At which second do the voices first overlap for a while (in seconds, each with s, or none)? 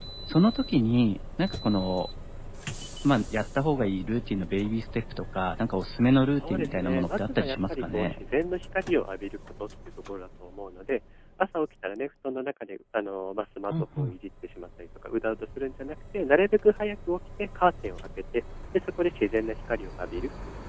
6.4 s